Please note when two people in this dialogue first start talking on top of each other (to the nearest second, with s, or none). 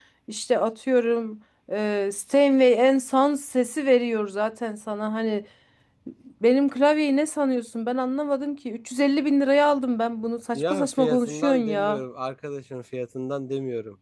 11 s